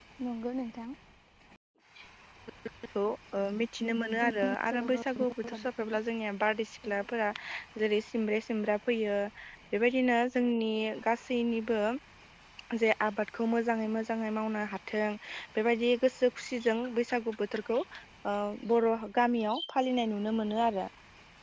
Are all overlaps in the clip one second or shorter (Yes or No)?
No